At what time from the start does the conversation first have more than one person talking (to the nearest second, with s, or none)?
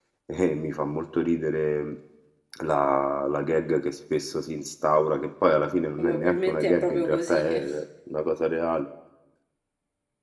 6 s